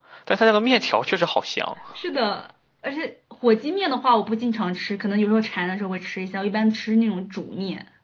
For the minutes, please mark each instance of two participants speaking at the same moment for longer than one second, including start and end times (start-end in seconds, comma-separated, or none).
none